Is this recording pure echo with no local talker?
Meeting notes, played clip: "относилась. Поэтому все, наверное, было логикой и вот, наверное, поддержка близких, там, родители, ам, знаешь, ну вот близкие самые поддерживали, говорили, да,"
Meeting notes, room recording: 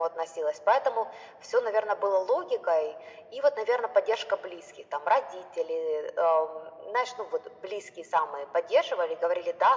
Yes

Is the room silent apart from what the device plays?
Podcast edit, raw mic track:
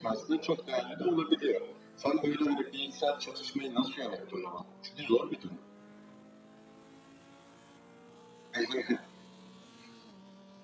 Yes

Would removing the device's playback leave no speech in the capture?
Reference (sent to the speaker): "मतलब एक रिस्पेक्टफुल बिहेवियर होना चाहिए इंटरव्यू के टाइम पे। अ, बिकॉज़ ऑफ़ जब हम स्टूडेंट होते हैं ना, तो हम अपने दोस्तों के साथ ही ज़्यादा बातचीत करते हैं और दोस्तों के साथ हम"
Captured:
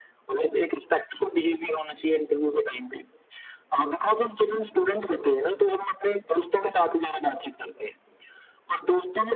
Yes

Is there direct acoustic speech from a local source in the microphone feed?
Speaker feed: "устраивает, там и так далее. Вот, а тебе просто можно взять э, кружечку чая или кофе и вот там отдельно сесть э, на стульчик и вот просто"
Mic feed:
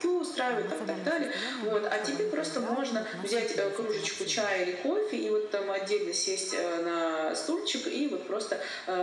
Yes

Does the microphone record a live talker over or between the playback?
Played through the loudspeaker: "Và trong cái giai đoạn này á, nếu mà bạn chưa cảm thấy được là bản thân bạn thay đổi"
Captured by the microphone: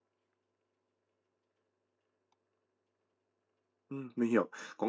Yes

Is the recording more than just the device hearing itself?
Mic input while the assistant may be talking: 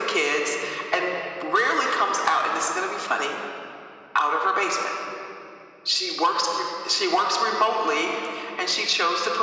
No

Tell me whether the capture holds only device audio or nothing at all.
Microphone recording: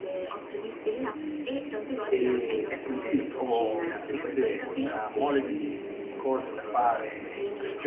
No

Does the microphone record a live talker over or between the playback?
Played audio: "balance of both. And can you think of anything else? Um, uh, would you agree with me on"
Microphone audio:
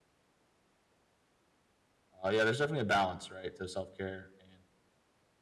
Yes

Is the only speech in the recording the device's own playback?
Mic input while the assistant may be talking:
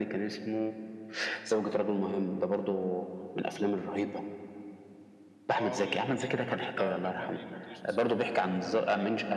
No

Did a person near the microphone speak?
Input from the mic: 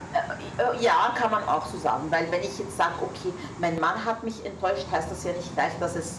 No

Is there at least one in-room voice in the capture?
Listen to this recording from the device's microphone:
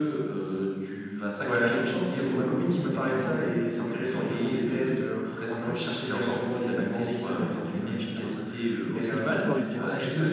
Yes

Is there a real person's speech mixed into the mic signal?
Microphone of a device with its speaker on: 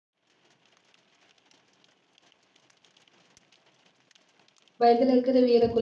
Yes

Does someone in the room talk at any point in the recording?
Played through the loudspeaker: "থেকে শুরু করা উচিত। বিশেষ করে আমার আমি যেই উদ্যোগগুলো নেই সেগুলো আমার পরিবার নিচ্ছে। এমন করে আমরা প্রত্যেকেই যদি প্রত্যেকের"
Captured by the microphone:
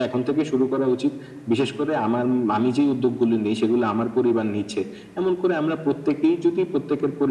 No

